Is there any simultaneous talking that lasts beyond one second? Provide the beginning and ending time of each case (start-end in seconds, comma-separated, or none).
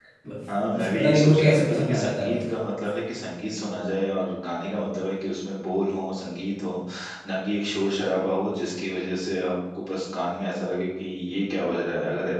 0.7-2.4